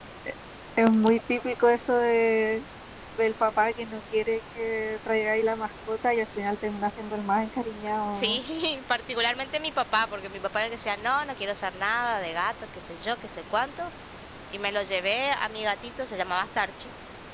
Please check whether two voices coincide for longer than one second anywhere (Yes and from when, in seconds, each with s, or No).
No